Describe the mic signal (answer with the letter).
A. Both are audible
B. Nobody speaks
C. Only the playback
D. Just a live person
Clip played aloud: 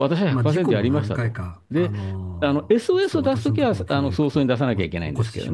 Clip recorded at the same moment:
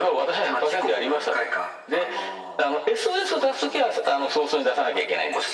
C